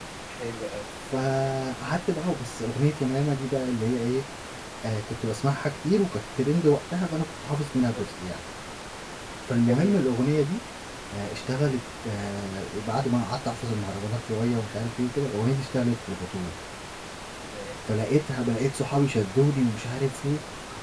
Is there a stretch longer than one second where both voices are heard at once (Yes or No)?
No